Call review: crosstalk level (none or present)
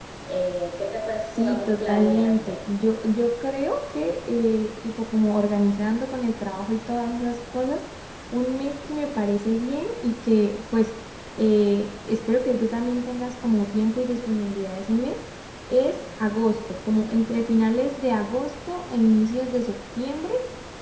present